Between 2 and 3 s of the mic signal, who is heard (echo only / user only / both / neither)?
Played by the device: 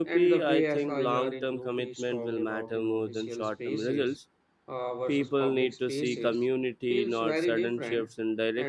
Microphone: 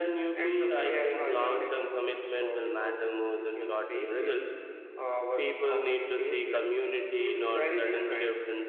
echo only